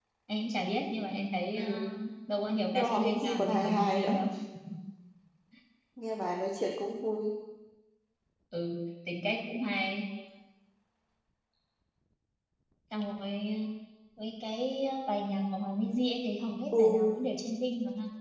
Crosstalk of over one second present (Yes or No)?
Yes